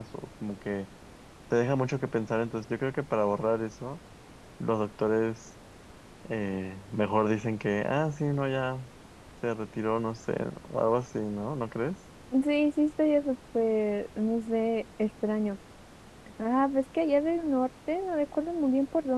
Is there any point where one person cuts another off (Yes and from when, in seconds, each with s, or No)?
No